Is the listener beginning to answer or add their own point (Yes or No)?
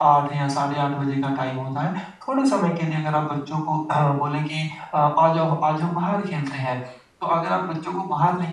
No